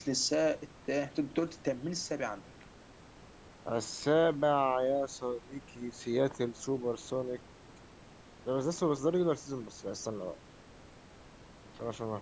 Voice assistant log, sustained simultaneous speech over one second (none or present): none